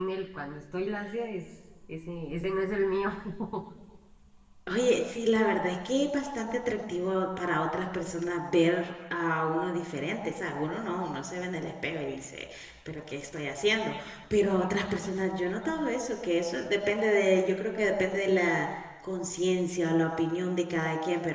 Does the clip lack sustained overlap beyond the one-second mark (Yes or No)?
Yes